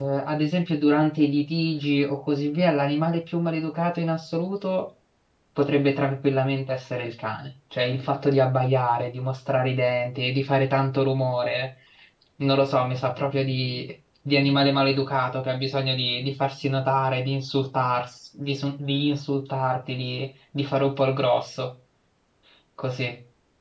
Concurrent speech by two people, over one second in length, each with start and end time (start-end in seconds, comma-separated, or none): none